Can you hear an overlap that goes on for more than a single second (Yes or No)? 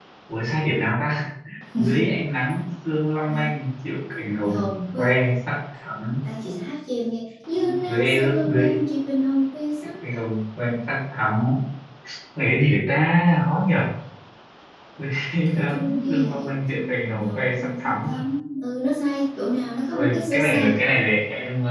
Yes